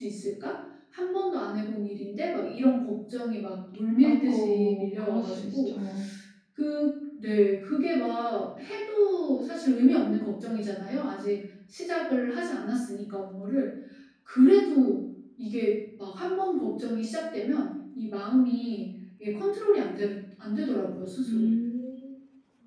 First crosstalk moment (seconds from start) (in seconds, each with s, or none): 4.0 s